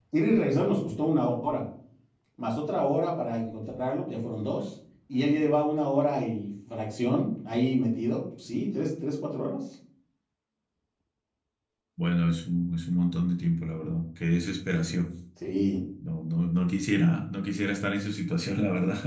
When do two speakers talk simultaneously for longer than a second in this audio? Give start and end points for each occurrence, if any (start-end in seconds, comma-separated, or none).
none